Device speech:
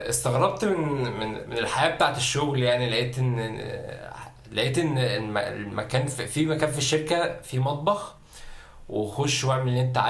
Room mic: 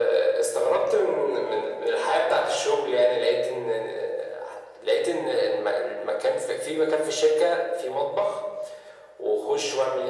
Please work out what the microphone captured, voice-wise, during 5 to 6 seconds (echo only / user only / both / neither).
echo only